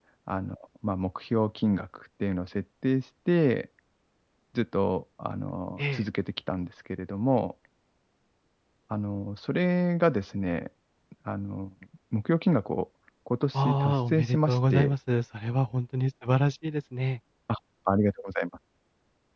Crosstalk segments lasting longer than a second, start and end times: 13.5-14.9

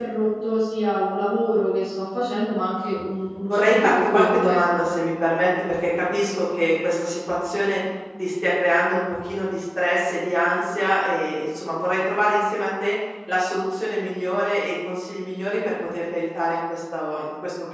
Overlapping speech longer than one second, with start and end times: 3.5-4.9

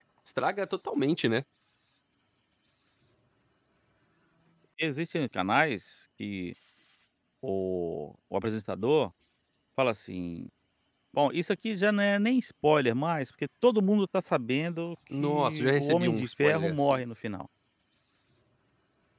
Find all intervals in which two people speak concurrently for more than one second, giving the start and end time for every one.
15.2-17.0

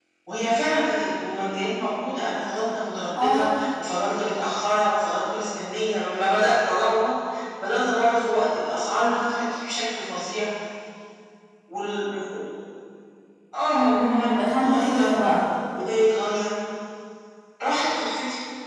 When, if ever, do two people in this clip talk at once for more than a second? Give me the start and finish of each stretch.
13.7-15.3

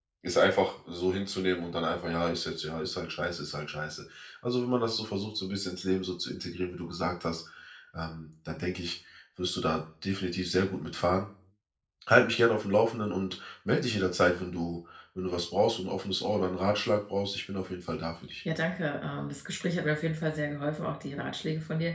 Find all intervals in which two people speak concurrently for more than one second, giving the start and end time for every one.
none

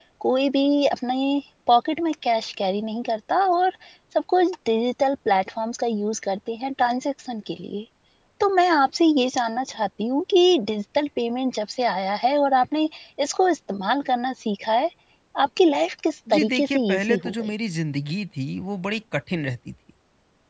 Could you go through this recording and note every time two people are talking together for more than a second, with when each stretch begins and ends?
16.3-17.5

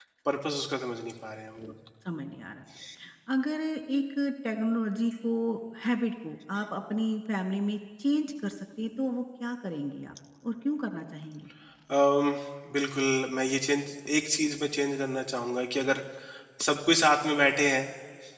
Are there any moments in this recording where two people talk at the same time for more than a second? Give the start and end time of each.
none

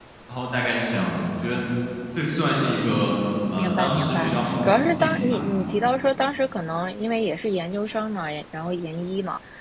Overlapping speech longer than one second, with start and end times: 3.6-5.4

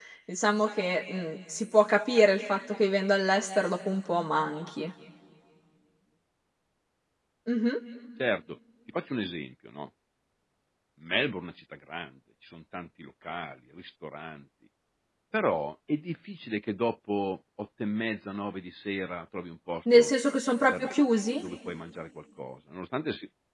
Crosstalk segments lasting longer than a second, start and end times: none

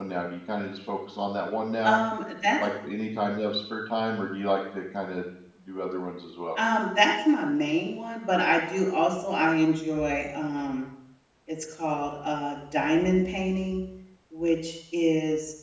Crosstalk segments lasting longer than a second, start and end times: none

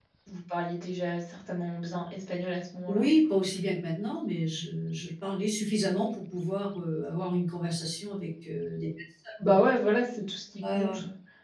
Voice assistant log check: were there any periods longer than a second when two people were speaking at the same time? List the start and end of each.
none

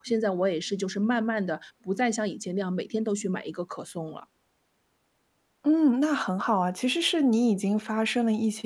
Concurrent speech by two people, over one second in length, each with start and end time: none

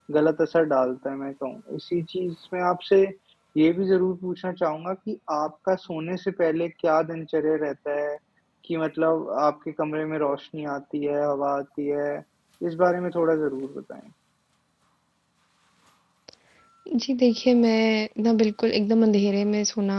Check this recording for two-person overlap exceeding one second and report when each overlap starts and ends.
none

